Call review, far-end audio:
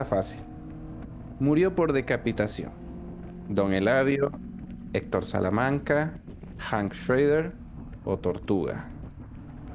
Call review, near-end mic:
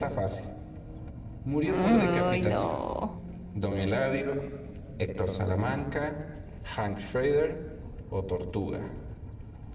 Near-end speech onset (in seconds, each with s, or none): 1.6 s